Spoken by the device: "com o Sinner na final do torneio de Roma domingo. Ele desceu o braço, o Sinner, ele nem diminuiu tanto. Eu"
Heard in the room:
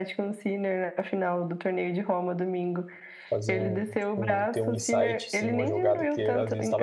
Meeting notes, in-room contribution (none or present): present